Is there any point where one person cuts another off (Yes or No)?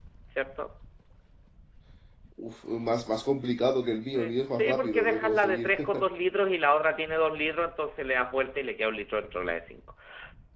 Yes